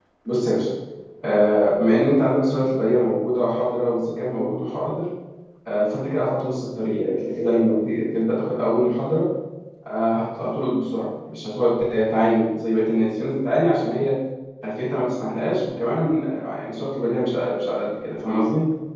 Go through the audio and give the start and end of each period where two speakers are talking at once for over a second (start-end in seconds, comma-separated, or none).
none